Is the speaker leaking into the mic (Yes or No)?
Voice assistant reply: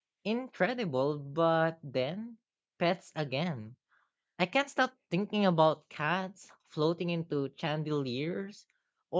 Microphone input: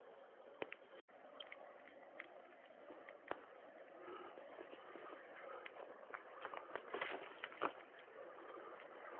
No